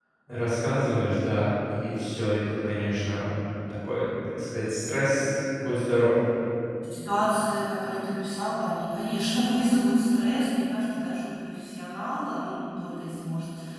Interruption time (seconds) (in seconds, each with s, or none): none